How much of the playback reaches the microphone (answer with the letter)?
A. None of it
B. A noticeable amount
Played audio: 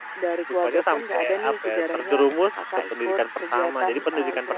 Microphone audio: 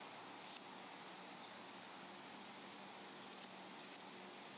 A